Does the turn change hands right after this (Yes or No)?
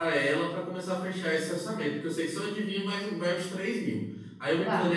No